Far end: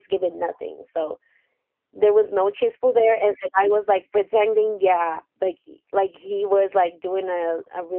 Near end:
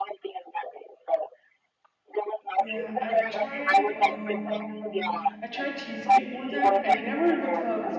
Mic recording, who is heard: both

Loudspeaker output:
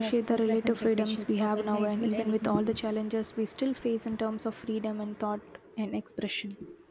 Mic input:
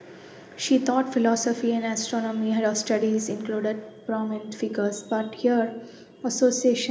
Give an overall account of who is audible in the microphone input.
user only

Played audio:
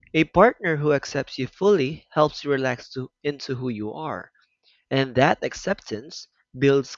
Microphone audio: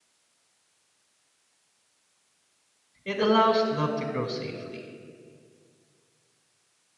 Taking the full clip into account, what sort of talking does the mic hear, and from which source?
user only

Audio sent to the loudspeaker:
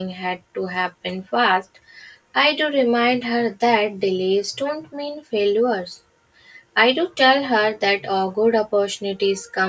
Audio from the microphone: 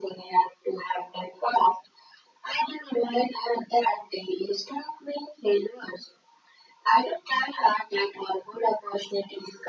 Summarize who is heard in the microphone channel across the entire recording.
echo only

